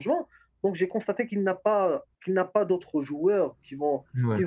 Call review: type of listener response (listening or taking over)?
listening